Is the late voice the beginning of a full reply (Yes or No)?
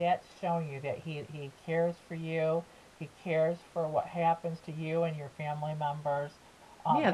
Yes